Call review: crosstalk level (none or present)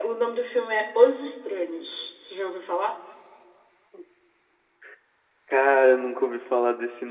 none